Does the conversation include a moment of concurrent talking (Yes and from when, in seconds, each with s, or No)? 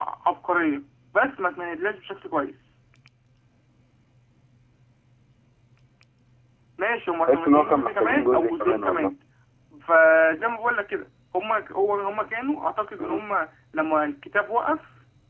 Yes, from 7.3 s